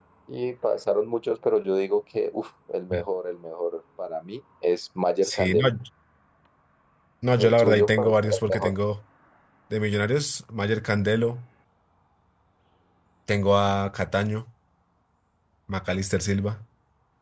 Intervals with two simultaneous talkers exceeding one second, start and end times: 7.4-8.7

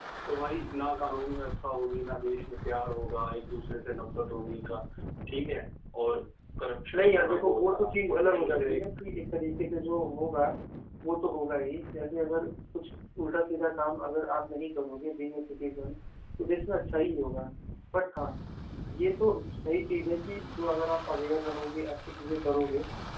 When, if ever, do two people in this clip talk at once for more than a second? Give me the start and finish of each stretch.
7.0-8.9

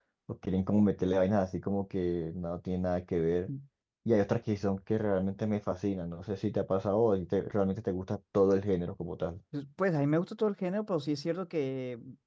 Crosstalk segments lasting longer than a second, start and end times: none

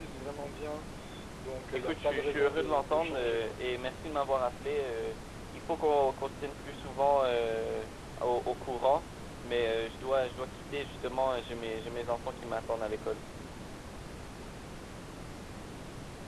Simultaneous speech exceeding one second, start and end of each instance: 1.7-3.5

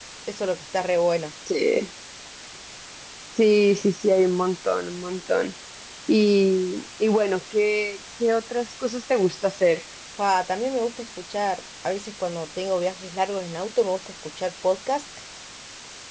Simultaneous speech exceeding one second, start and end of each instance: none

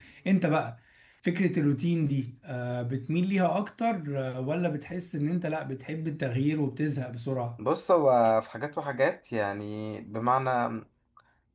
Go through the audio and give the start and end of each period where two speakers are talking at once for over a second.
none

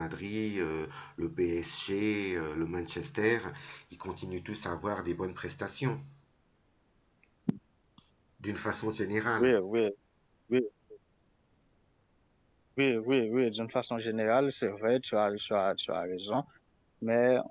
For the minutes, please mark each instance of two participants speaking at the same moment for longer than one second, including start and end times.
none

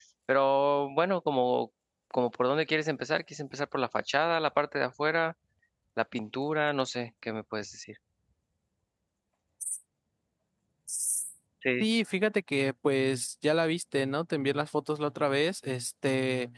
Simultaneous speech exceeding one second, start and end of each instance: none

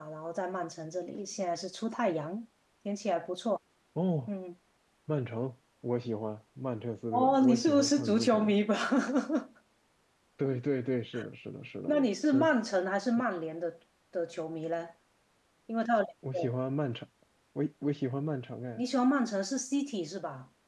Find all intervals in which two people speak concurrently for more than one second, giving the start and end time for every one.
7.1-8.5

